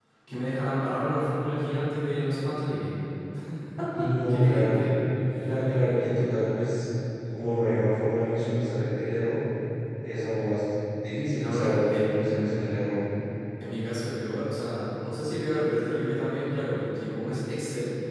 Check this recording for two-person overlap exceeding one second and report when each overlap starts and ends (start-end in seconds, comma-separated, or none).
11.4-12.8